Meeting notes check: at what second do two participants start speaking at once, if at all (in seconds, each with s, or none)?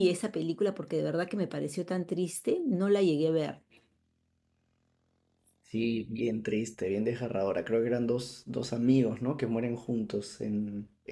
none